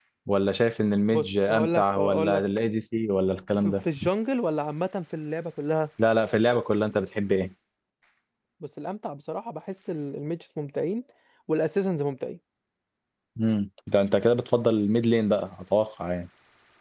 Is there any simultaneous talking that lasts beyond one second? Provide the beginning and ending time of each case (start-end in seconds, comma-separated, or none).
1.1-2.4